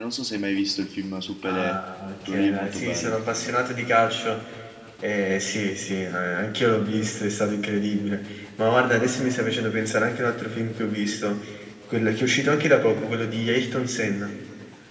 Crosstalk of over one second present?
Yes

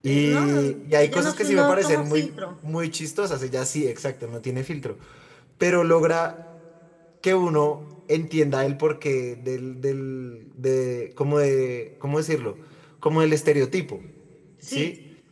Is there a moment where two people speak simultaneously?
Yes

